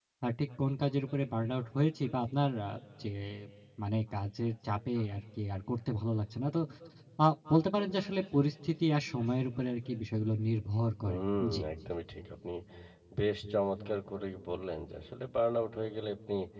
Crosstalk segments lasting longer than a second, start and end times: none

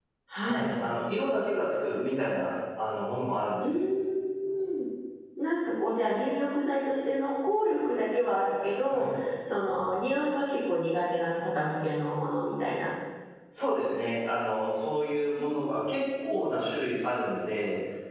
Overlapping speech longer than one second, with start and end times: none

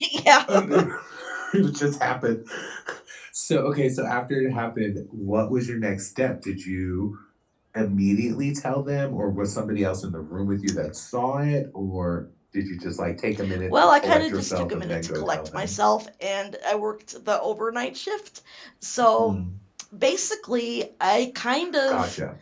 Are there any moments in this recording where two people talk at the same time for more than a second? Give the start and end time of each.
13.6-15.7

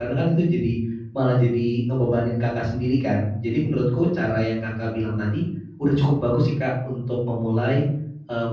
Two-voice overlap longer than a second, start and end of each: none

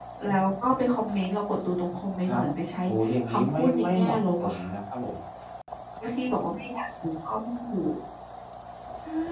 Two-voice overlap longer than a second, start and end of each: 3.3-4.7

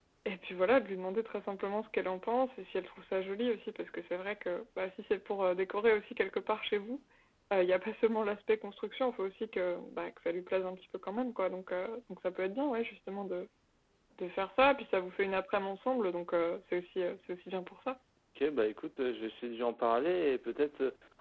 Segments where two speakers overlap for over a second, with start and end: none

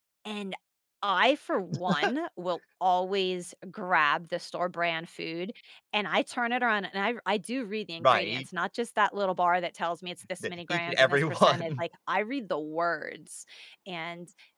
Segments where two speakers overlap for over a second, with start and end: 10.4-11.8

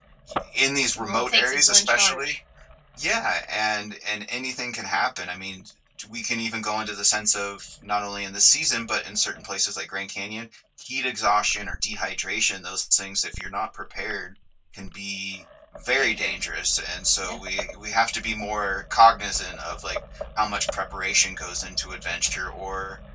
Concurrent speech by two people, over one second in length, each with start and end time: 1.0-2.4

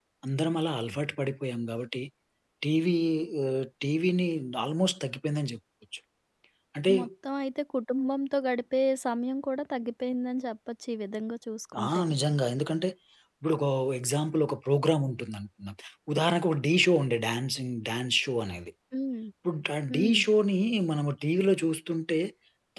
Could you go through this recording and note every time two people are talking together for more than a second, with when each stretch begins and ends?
none

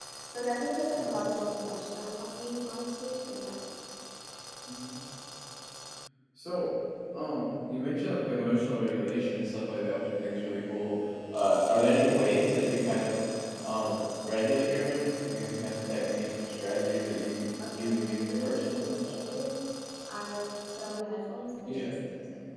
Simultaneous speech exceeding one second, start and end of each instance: 17.7-18.9

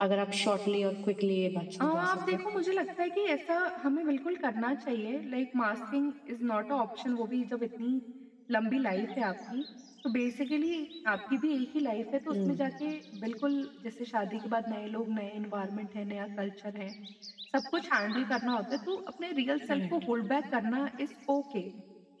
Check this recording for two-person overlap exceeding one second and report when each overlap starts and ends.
none

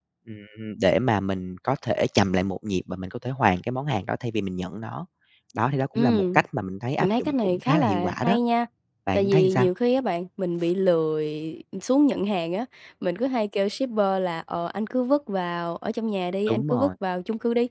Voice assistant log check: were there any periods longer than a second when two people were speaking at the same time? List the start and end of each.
7.0-8.4

